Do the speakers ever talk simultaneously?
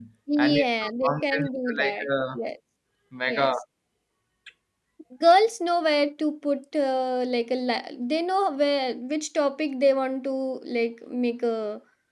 Yes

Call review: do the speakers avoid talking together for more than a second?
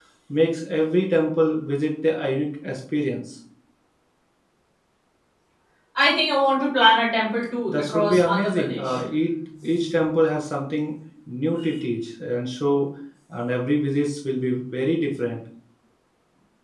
No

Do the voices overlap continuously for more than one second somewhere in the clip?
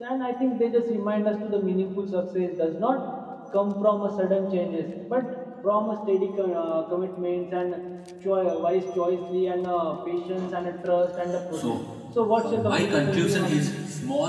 Yes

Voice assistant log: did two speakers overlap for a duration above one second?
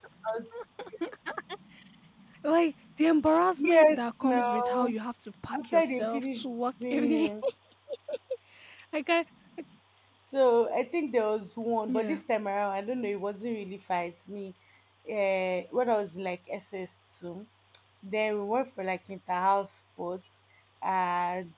Yes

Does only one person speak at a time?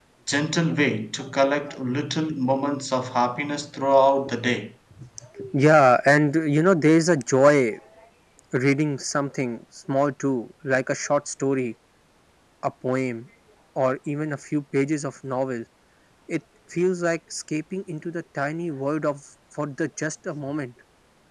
Yes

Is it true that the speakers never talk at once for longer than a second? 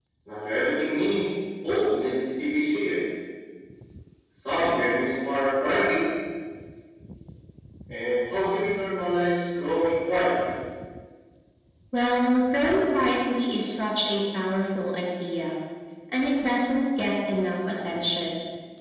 Yes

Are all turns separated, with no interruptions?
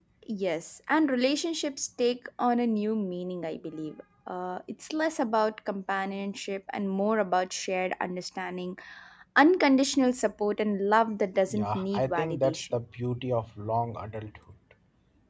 No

